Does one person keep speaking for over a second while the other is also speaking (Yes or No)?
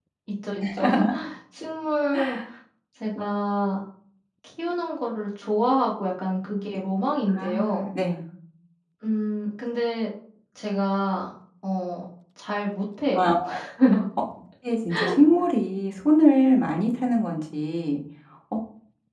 No